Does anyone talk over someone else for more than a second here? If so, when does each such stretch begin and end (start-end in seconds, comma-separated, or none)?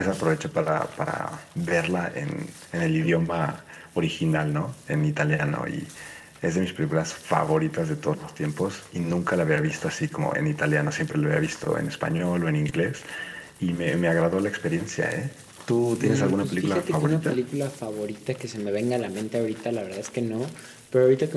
16.0-17.4